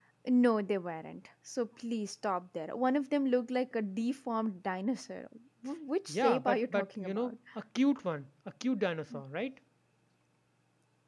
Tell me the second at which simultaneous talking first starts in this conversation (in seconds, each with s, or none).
6.1 s